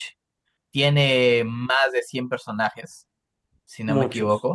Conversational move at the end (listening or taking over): listening